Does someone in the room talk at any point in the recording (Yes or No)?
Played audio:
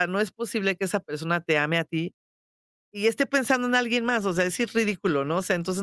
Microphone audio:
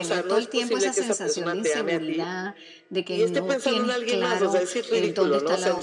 Yes